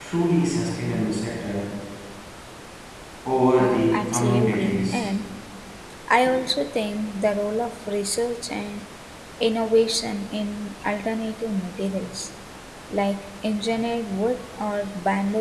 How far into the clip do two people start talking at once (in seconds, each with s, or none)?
3.6 s